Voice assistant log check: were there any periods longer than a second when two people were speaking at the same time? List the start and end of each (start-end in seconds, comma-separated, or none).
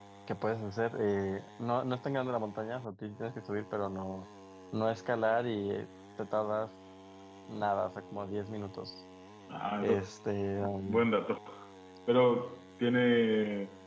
none